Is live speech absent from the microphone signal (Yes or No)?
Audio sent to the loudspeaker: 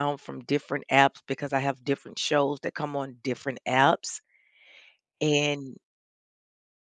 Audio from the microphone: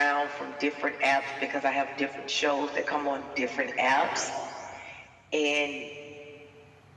Yes